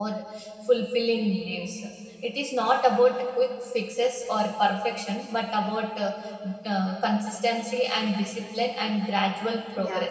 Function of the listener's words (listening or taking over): taking over